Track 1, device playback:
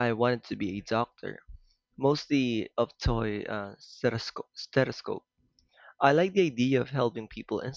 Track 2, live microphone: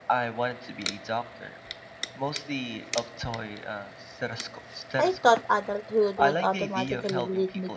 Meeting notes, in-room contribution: present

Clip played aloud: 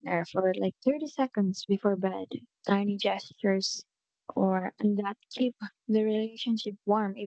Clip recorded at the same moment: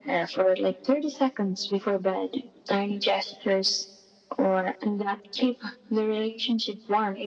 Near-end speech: none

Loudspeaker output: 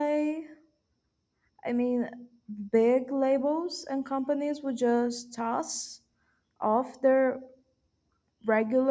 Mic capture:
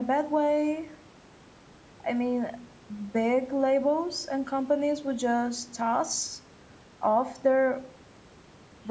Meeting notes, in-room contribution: none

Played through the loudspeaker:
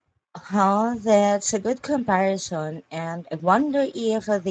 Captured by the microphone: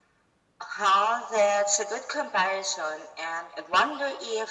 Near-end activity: none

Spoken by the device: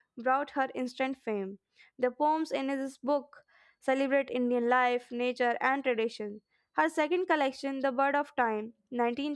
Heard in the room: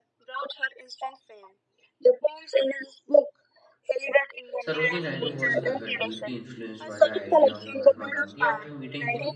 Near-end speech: present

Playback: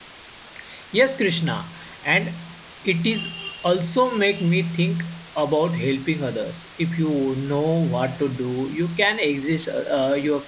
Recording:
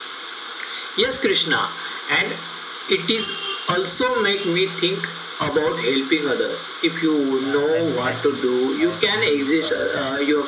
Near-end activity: present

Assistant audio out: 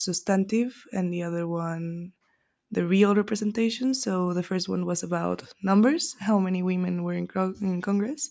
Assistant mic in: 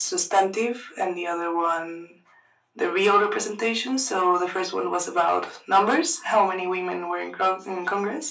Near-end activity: none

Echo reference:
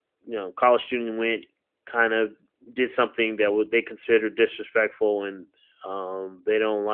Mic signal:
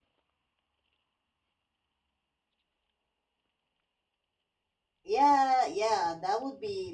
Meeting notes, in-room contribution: present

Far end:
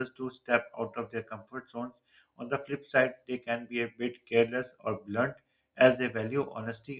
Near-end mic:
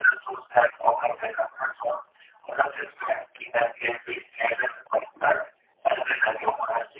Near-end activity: none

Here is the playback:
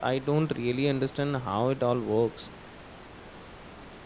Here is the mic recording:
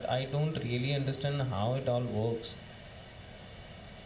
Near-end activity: none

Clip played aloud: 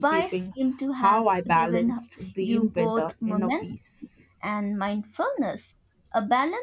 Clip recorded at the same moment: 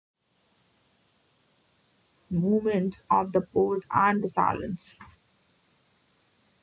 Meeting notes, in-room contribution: present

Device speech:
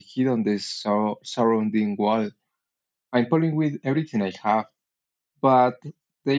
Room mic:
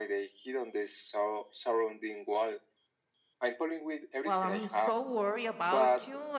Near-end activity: present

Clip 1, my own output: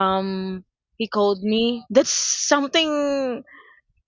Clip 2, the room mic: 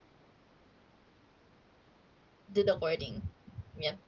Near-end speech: present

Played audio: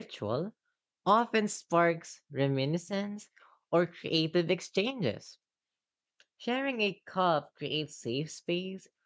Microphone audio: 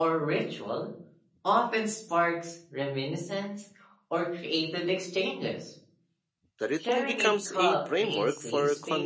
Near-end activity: present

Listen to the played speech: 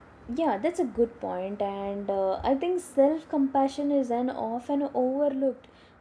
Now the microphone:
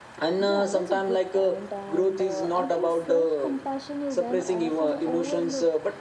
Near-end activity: present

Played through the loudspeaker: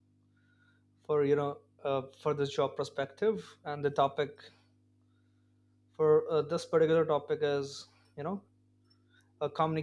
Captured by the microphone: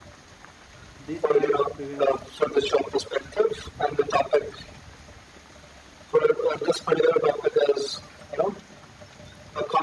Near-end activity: present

